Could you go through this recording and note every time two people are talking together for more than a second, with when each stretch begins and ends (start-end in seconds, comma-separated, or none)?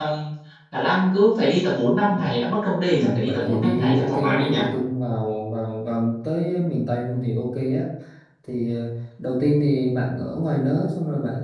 2.9-4.6